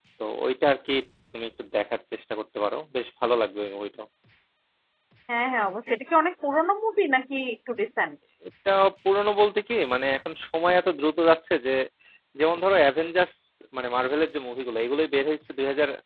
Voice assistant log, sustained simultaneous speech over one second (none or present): none